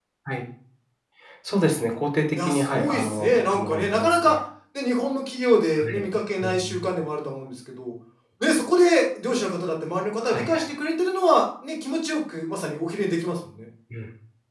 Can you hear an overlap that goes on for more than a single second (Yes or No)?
Yes